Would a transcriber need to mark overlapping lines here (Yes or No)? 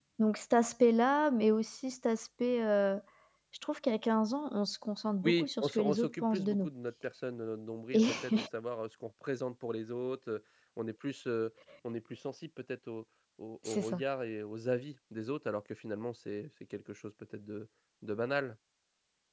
Yes